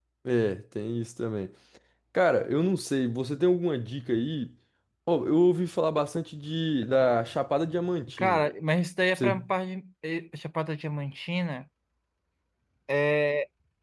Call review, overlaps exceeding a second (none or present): none